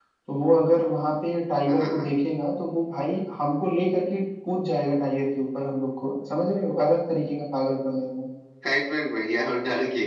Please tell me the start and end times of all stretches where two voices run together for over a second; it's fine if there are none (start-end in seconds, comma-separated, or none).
none